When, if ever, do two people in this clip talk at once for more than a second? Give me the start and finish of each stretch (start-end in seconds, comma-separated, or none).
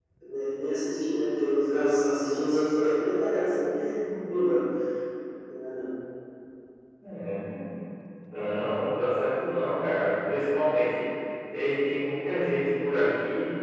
none